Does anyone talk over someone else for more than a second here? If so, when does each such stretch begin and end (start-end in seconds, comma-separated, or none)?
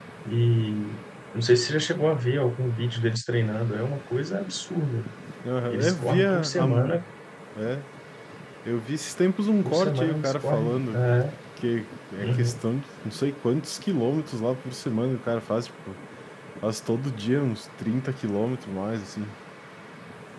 5.7-7.0, 9.6-11.0